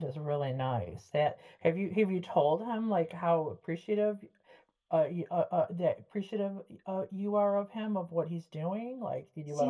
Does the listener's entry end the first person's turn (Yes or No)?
Yes